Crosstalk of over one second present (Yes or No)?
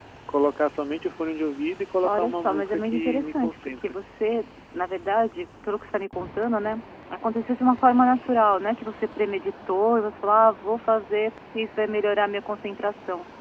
Yes